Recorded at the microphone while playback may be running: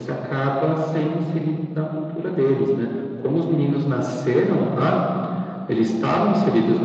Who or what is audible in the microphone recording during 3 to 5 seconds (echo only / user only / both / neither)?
echo only